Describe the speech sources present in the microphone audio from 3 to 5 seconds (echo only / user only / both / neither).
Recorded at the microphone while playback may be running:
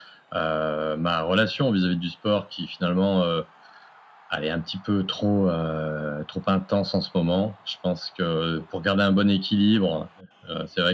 echo only